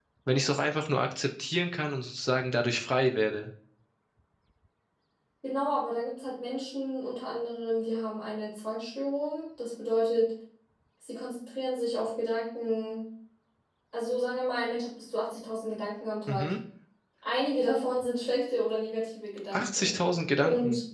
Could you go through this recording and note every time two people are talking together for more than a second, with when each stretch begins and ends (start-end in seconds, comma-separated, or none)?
none